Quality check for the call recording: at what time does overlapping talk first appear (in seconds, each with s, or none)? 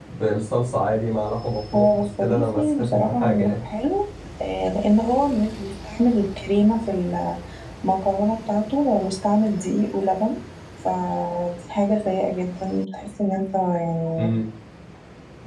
1.7 s